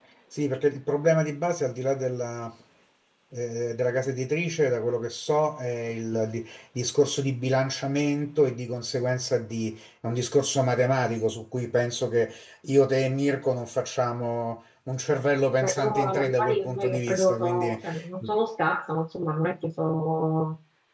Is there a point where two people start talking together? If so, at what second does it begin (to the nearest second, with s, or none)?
16 s